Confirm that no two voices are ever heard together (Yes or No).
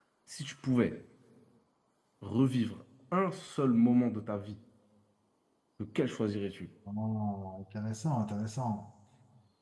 Yes